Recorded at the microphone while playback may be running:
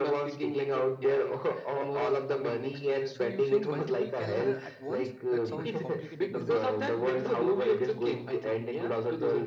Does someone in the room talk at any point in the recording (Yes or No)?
Yes